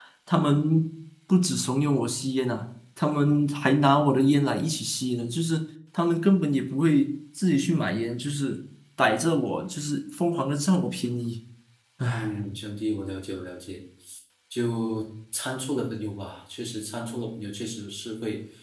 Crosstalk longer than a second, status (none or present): none